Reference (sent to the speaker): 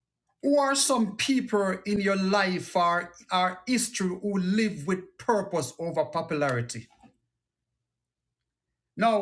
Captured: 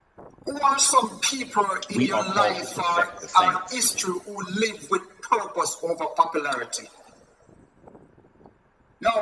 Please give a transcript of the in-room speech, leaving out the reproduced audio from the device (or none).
we are called to perfect the saints